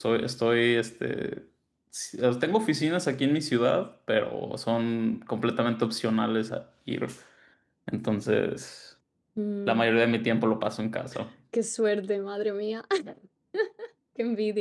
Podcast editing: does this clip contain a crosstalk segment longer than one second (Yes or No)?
No